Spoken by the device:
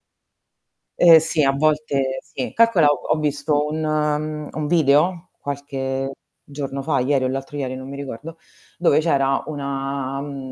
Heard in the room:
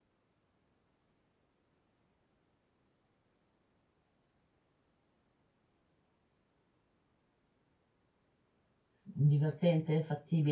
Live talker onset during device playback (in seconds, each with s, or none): 9.0 s